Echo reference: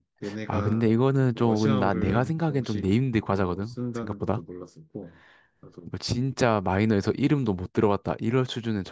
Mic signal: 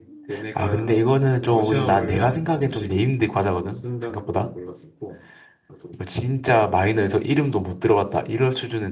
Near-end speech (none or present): none